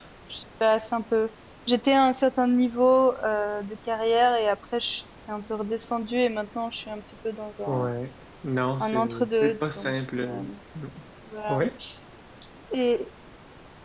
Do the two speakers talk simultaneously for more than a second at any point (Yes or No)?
Yes